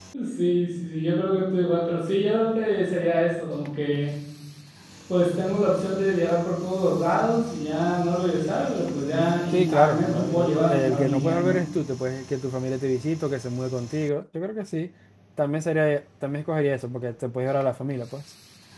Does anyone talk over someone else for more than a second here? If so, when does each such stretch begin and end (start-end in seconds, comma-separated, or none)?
9.5-11.6